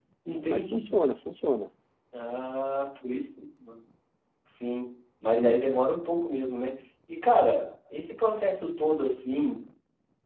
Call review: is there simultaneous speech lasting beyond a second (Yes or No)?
No